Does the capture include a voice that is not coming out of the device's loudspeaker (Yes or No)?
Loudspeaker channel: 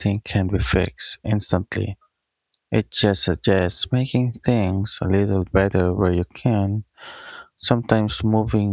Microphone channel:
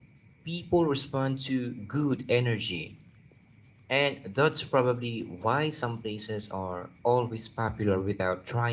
Yes